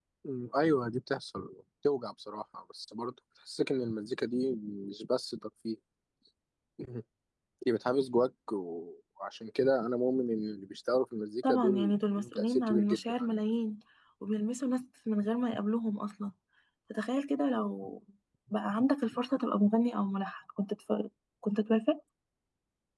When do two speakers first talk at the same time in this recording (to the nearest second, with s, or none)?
11 s